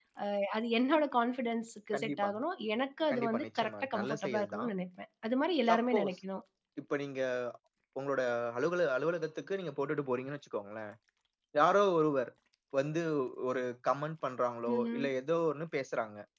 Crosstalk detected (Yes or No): Yes